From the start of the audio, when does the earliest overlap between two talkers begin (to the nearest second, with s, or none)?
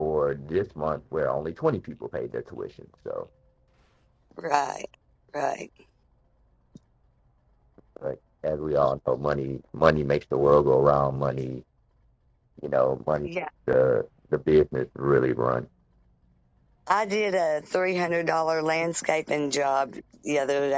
none